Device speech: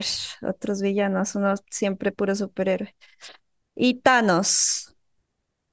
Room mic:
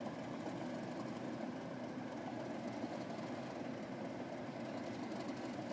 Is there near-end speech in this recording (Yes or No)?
No